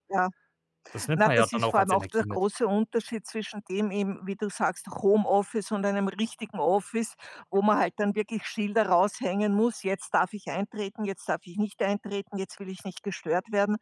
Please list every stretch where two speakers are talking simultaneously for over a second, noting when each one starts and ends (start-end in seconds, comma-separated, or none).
1.2-2.4